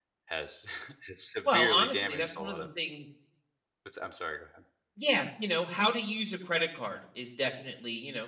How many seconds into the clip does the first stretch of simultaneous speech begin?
1 s

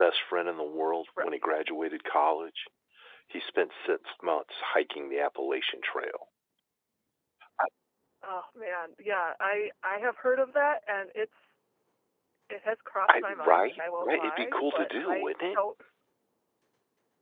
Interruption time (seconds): 13 s

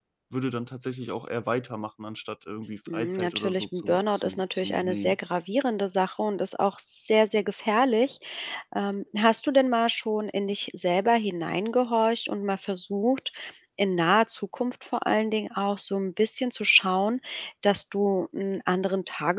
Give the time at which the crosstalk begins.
3 s

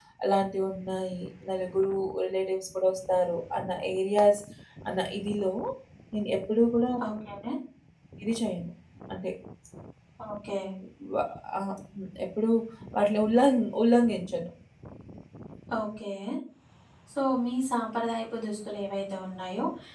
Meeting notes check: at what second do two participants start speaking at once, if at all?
none

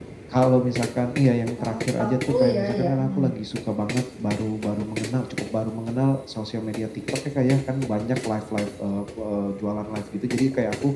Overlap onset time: 2 s

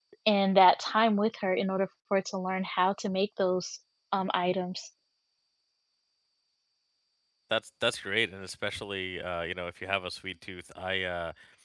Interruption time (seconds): none

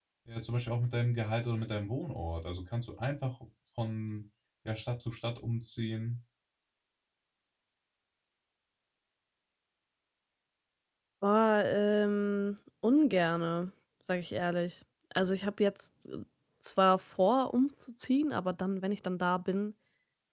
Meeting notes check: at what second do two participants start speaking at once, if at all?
none

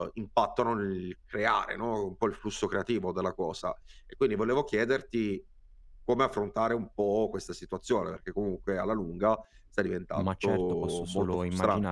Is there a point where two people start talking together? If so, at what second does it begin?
10 s

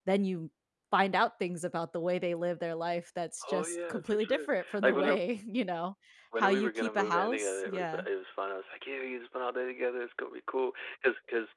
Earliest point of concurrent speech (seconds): 3 s

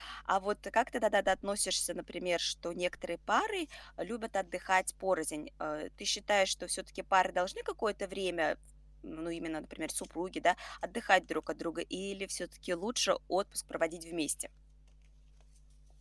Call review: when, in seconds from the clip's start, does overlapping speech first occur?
none

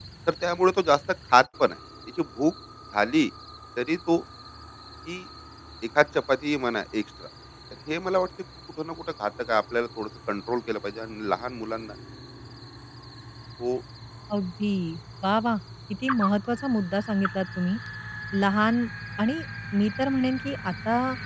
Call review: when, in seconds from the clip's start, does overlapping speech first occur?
none

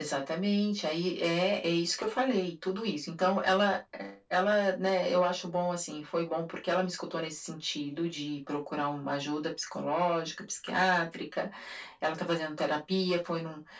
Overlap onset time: none

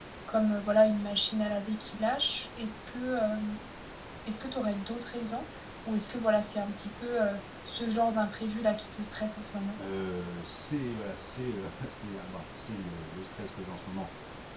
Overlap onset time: none

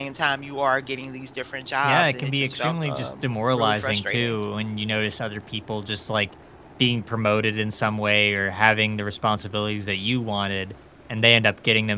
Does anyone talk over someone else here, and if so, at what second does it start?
2 s

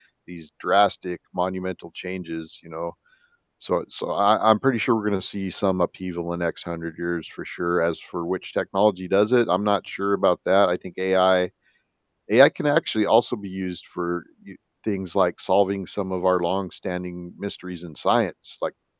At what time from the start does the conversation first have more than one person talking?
none

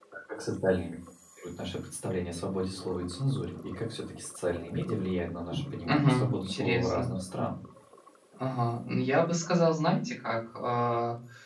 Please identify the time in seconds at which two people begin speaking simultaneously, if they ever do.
6 s

